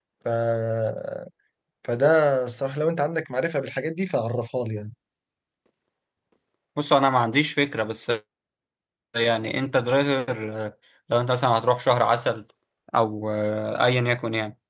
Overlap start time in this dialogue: none

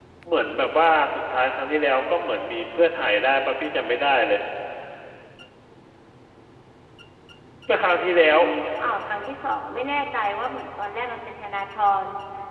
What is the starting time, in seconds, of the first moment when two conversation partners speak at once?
none

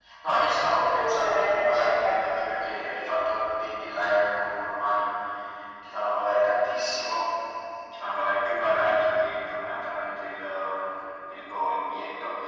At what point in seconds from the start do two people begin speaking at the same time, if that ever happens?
1 s

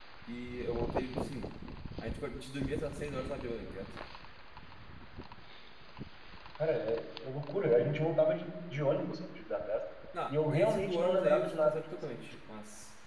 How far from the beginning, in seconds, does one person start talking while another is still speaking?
10 s

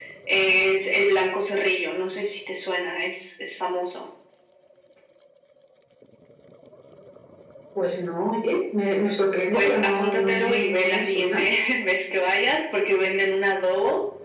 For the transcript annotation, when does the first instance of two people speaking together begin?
9 s

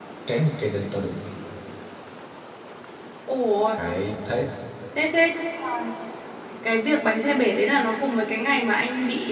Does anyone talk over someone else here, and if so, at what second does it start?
none

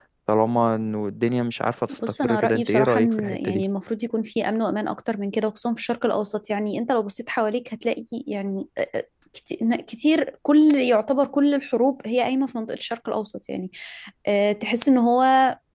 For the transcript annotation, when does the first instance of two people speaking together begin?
2 s

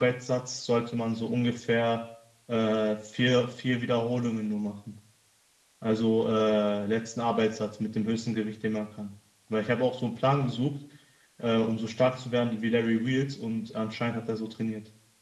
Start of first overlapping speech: none

